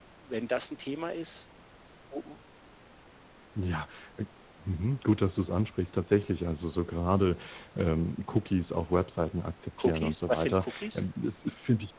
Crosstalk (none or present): present